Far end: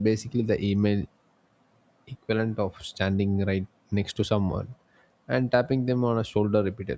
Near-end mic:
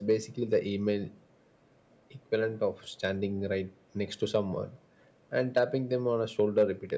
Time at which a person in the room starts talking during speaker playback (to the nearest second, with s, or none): none